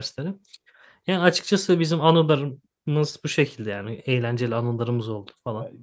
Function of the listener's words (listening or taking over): taking over